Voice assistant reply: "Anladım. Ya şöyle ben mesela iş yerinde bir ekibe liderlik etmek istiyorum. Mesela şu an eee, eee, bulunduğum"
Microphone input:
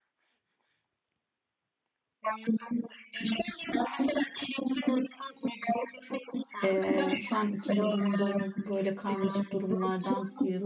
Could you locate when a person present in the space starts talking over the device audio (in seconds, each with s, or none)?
6.6 s